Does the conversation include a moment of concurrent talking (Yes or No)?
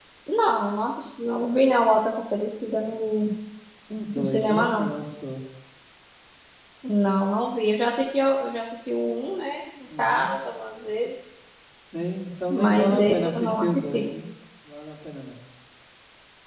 Yes